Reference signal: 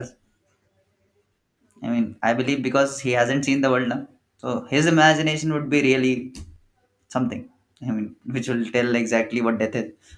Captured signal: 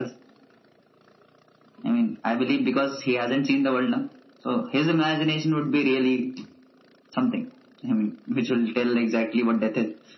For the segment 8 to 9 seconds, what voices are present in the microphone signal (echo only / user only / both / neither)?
echo only